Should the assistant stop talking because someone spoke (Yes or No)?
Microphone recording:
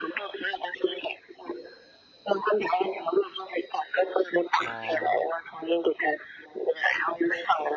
Yes